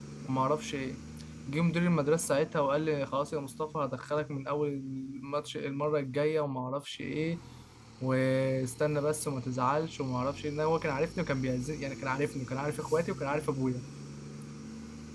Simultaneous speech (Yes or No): No